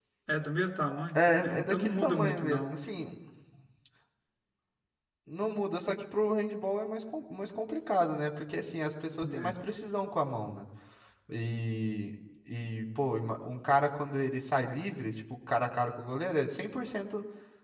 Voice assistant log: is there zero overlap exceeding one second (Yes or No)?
No